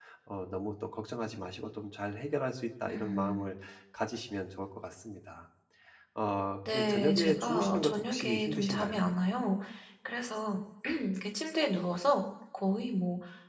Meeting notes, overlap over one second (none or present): present